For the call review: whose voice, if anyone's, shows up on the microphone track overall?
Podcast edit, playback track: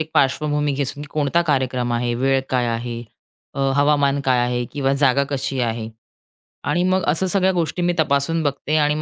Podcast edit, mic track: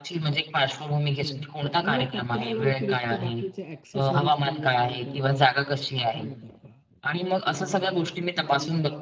both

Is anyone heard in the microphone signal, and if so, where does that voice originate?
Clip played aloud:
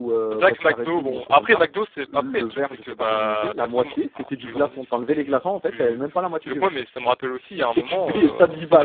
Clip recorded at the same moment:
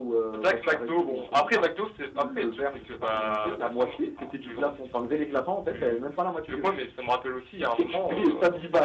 echo only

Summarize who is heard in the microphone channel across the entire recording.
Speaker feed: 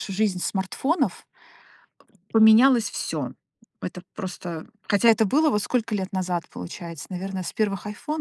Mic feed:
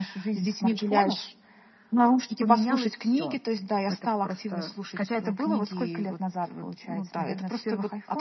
both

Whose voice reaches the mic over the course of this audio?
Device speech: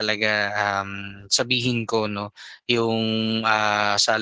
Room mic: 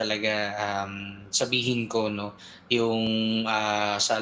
echo only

